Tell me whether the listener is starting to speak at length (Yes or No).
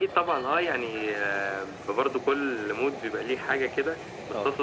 No